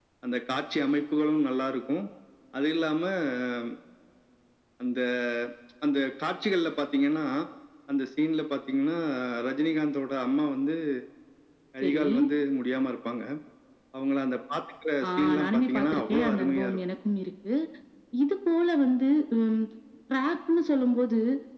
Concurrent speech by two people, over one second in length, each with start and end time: 15.1-16.8

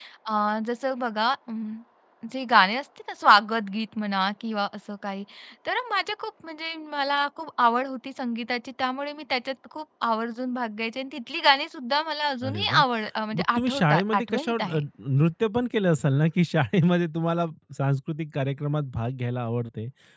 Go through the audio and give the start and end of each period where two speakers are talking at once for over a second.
13.4-14.8

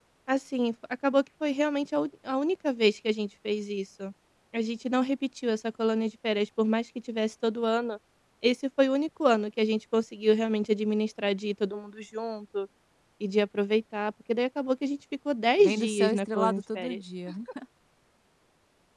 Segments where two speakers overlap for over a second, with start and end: 15.6-17.0

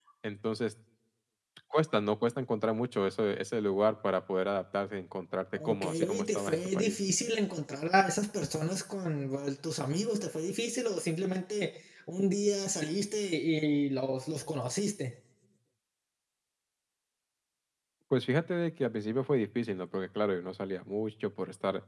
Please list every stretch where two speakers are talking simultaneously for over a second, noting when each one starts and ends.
5.6-7.0

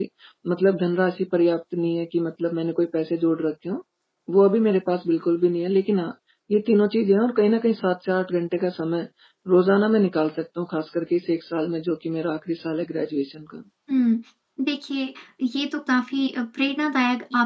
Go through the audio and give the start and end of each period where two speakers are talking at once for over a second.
none

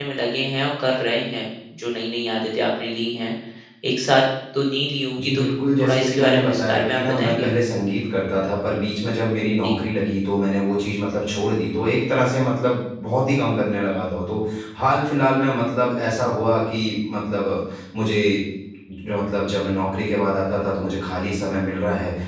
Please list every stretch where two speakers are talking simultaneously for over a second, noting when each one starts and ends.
5.2-7.5

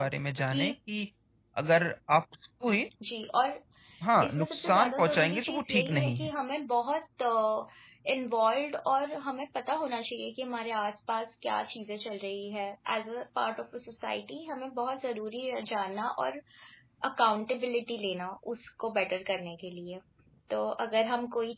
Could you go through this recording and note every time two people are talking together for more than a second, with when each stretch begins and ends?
4.2-6.3

